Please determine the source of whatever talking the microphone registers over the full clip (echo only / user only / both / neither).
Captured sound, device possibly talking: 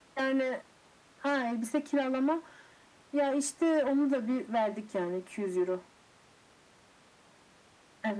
echo only